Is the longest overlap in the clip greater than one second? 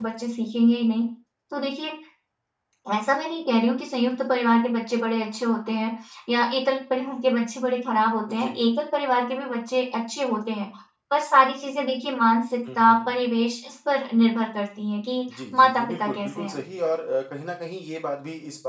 Yes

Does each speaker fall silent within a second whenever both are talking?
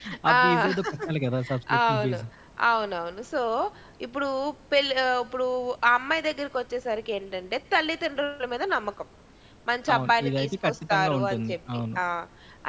No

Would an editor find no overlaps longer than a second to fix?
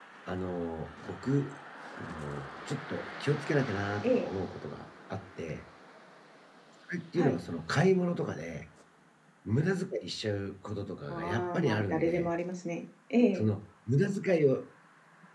No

